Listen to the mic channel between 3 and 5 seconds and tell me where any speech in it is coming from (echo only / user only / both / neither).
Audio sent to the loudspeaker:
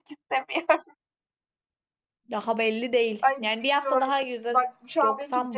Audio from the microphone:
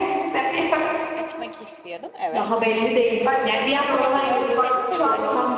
both